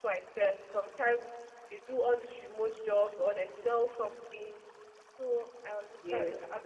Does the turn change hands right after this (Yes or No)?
No